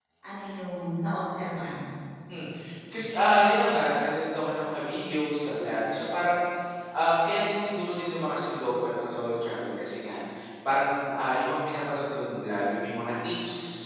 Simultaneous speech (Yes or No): No